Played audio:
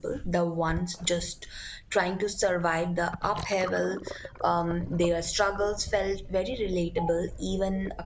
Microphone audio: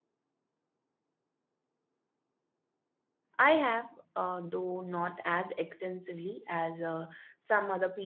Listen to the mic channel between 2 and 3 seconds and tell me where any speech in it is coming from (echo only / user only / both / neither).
neither